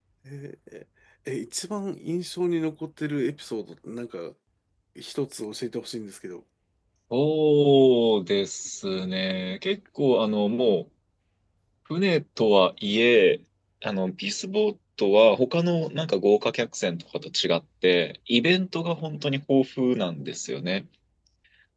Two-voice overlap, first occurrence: none

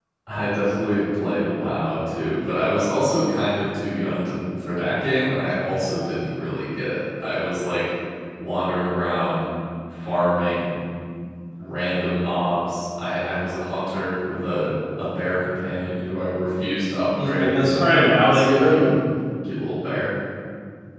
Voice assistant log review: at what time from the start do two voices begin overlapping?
17 s

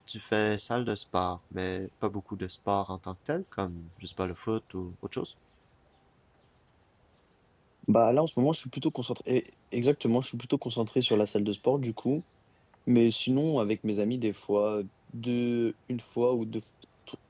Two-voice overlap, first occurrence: none

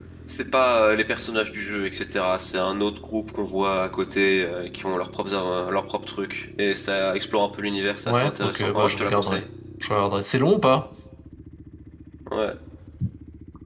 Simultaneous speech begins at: 8 s

